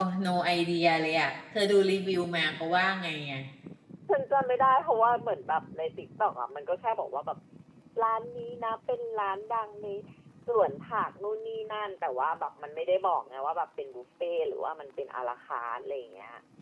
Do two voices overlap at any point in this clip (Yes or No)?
No